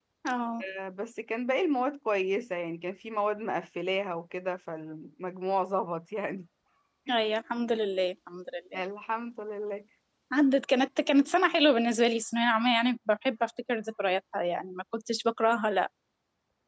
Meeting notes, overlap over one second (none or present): none